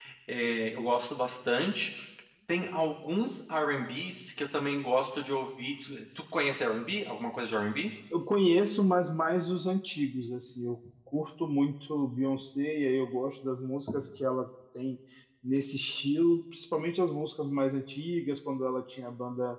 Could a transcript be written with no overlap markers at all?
Yes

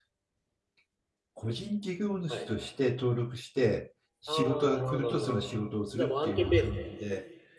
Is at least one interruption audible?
Yes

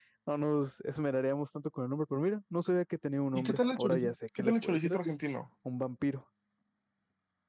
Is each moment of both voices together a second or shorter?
No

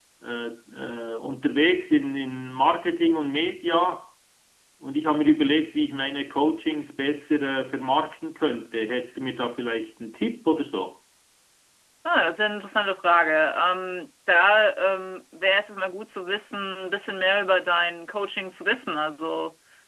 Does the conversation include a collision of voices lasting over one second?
No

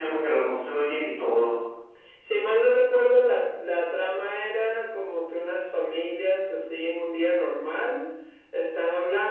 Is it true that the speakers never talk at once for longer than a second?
Yes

